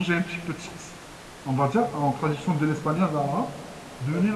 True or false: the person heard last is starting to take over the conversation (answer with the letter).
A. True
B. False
B